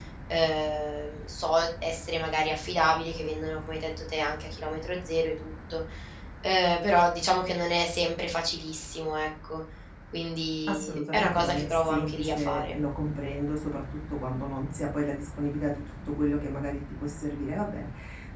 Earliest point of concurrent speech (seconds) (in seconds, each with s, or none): 10.7 s